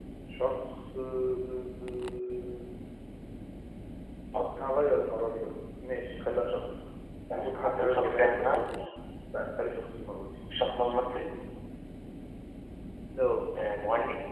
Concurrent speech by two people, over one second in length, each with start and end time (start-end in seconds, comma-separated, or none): 7.3-8.7